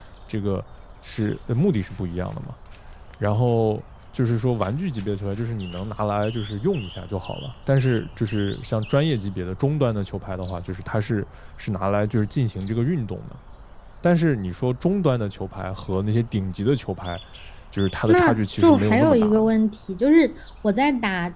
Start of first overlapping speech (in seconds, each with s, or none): 18.1 s